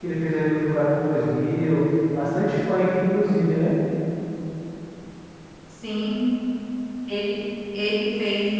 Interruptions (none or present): none